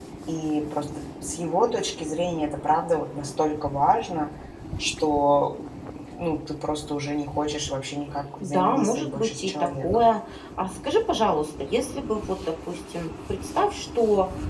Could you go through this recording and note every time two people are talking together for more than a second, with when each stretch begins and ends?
8.4-10.1

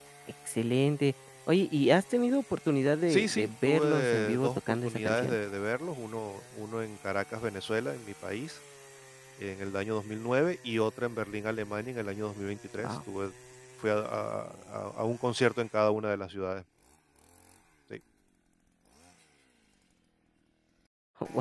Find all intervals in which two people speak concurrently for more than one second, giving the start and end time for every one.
3.1-5.4

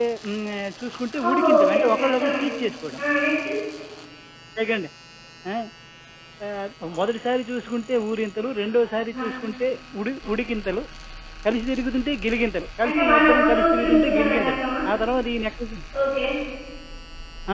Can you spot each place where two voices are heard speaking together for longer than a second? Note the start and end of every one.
1.3-2.5, 12.8-14.6

